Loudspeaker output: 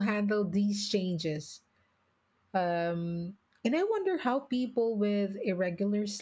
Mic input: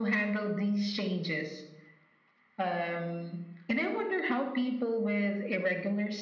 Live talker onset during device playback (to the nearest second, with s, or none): none